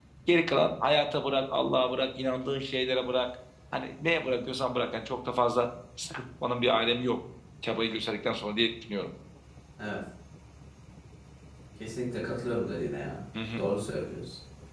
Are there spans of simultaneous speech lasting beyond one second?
No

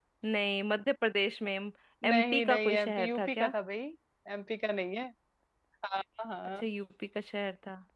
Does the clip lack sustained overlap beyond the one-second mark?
No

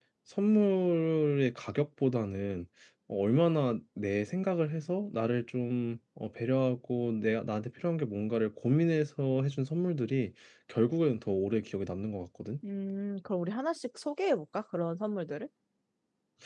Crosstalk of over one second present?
No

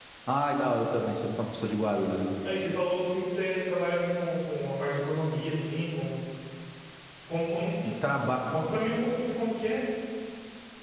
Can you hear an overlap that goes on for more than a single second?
No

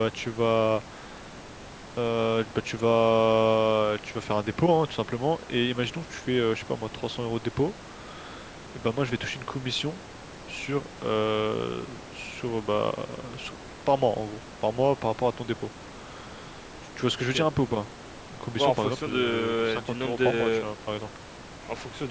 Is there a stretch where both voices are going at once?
Yes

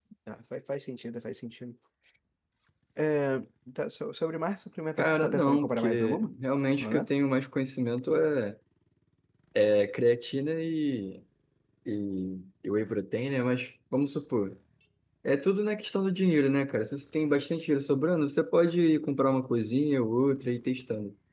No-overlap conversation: No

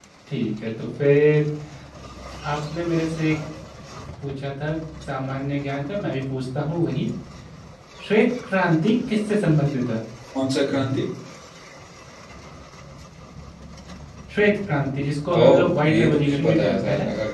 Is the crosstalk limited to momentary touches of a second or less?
No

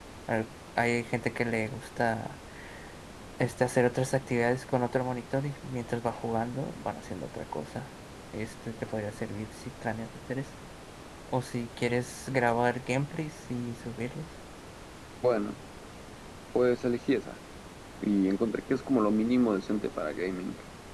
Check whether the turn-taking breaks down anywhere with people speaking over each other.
No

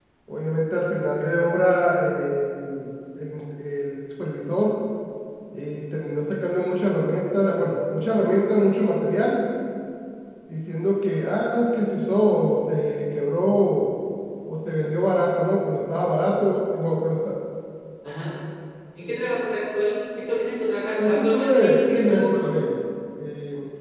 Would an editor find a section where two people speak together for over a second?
Yes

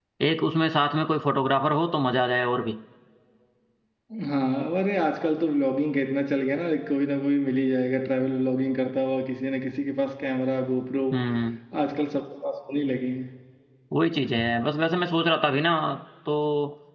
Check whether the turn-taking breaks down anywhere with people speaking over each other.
No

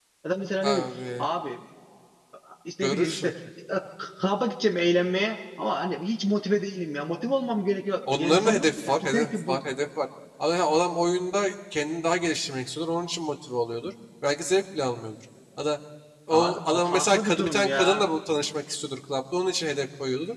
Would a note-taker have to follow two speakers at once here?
Yes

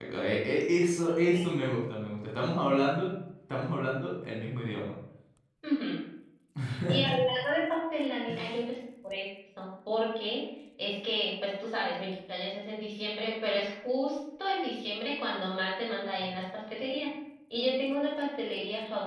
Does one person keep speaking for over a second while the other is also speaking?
No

